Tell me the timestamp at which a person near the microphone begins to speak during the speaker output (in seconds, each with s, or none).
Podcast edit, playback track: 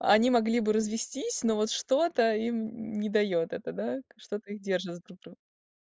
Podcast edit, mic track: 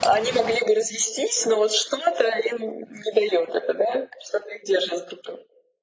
none